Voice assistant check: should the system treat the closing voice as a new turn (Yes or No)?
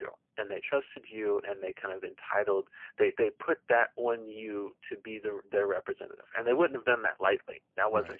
No